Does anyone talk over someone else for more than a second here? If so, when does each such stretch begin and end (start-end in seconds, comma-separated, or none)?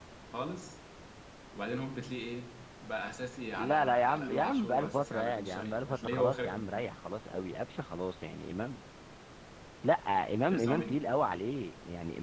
3.6-6.5